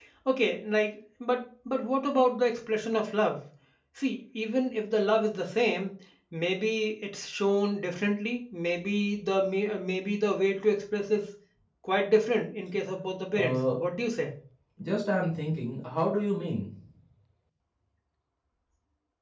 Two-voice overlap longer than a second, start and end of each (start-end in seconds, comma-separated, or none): none